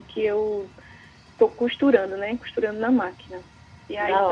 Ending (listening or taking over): listening